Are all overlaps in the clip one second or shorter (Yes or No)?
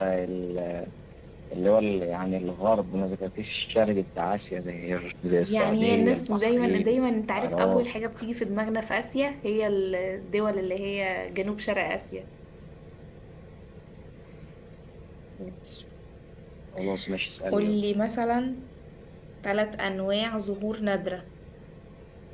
No